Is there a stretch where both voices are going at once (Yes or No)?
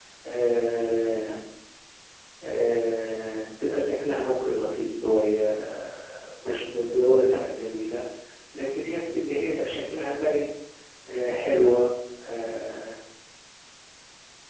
No